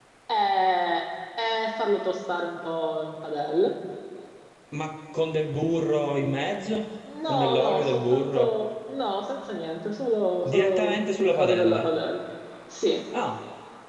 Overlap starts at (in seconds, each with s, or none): 7.3 s